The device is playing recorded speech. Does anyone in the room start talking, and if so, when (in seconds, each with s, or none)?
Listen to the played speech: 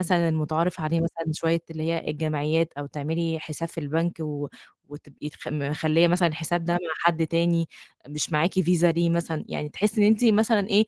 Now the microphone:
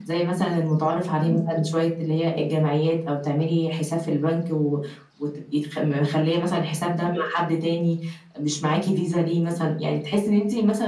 1.2 s